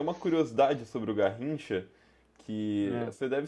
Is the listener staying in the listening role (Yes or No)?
Yes